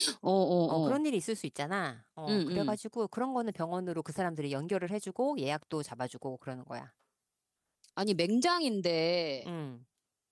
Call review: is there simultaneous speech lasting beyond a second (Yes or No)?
No